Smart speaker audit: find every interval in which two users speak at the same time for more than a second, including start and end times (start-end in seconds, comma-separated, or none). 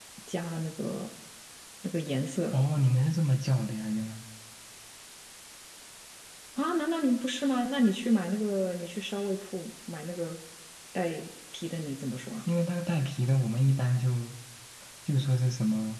none